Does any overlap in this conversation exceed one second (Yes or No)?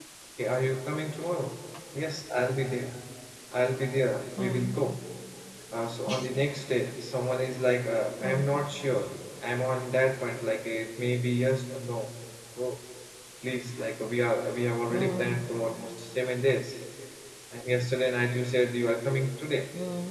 No